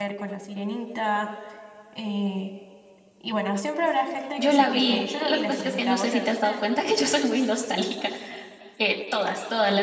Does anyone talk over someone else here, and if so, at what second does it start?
4 s

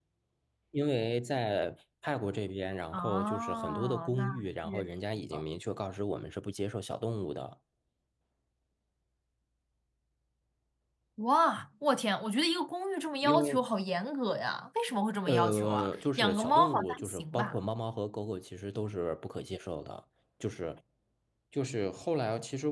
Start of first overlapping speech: 3 s

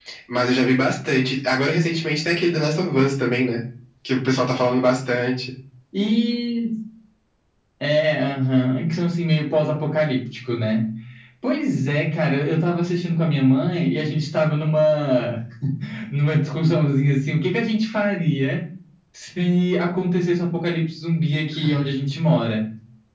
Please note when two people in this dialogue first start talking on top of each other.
none

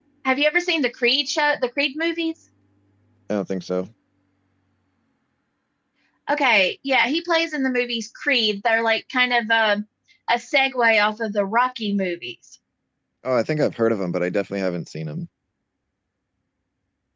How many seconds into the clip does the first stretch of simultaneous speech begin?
none

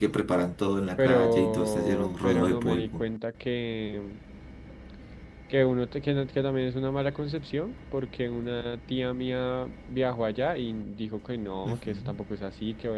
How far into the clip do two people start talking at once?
1 s

